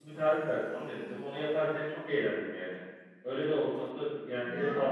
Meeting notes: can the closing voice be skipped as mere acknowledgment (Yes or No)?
No